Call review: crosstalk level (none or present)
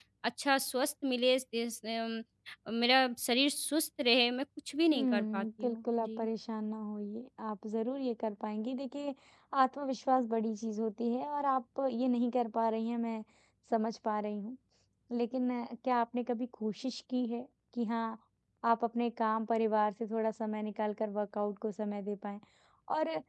present